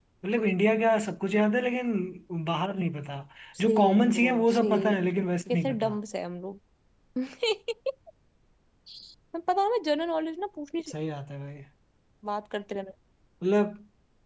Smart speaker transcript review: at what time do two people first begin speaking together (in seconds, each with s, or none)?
3.6 s